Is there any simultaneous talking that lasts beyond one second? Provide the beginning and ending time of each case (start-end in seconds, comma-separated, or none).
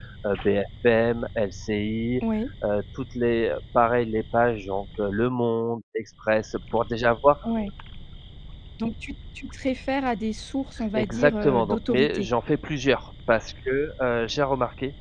10.9-12.3